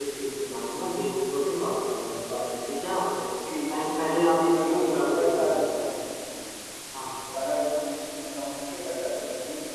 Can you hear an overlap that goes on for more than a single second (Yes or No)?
Yes